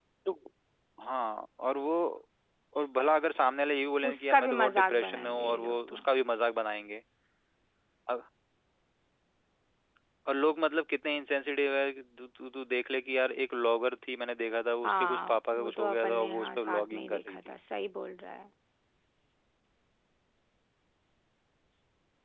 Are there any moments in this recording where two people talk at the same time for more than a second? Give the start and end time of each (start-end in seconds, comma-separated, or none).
4.1-5.9, 14.8-17.5